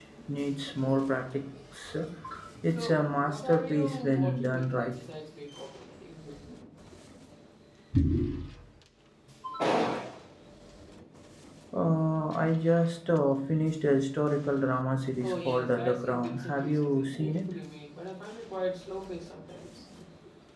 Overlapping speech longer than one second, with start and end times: 2.8-4.9, 15.2-17.5

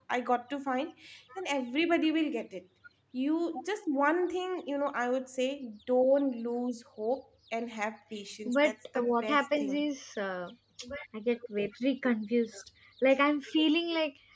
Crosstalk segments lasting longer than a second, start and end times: 8.4-9.8

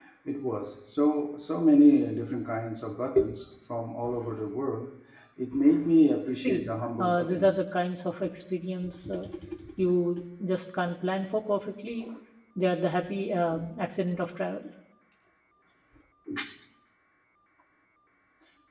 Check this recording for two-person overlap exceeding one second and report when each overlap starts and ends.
6.3-7.5

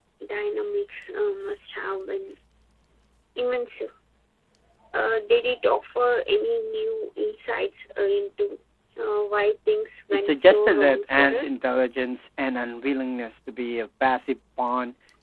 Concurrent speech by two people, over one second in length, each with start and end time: 10.1-11.4

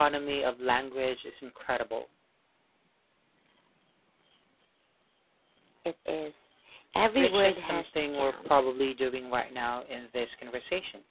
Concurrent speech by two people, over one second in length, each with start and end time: 7.2-8.5

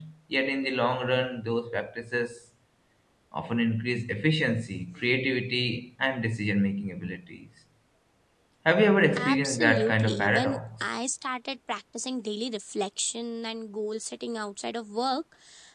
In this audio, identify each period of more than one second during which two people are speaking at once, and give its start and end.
9.2-10.8

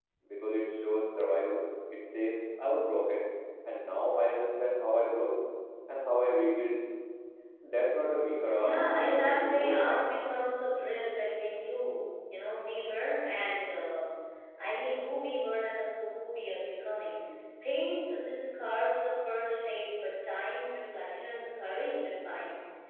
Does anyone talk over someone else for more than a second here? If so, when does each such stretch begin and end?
8.6-10.1

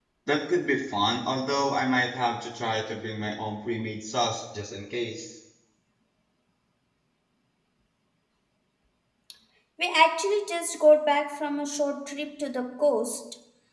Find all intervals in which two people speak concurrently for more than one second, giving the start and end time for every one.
none

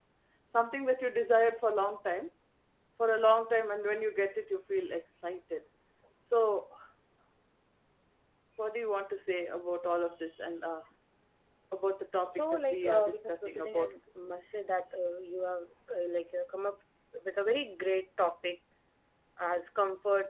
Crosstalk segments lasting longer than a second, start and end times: 12.3-13.9

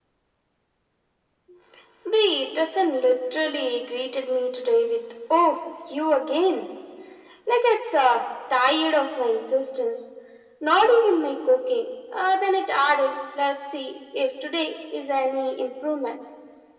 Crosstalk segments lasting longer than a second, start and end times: none

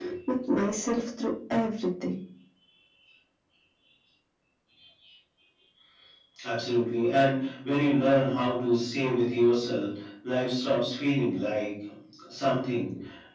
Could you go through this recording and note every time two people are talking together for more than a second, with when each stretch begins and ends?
none

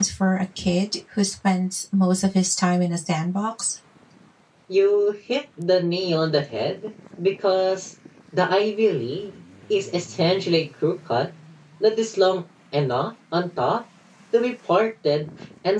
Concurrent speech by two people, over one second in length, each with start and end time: none

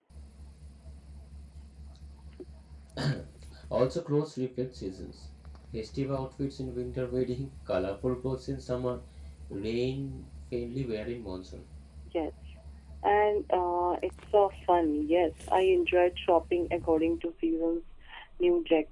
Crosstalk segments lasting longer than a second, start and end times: none

